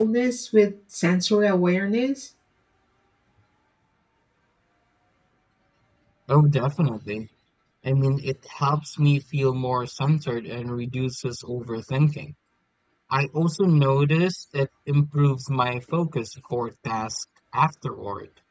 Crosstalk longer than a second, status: none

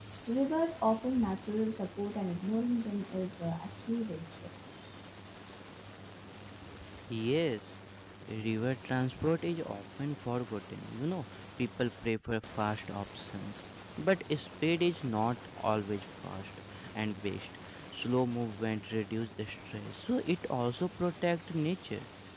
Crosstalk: none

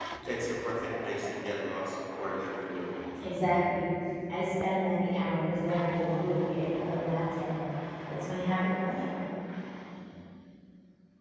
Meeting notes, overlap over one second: none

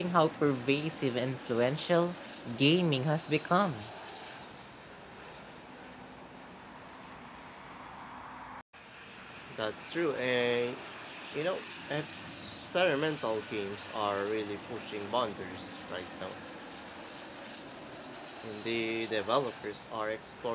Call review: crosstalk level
none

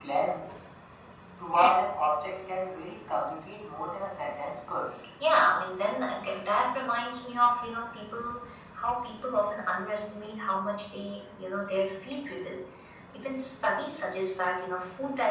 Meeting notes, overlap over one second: none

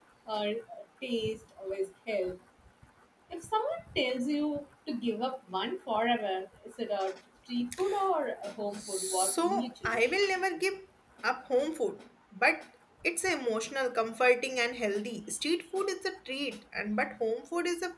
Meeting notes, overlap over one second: present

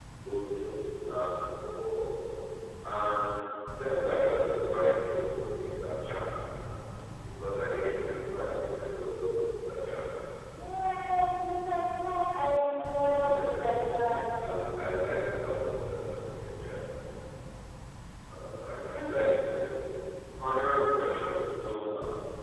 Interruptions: present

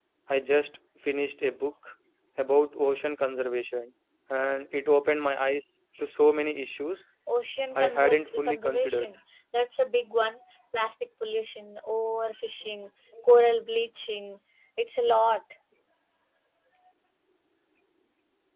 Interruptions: present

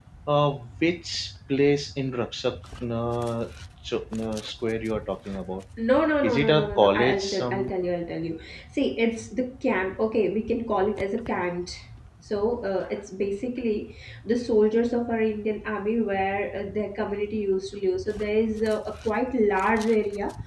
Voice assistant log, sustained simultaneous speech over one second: present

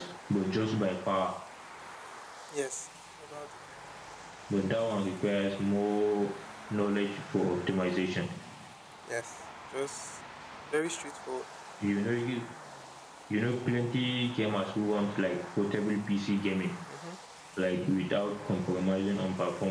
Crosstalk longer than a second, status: none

